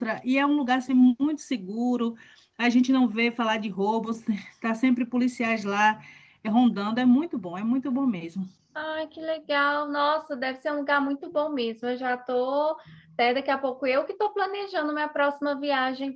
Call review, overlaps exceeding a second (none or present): none